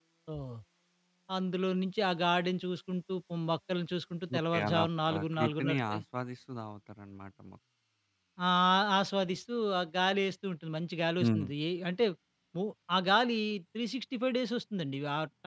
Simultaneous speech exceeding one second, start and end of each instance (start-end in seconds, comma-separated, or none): 4.4-6.0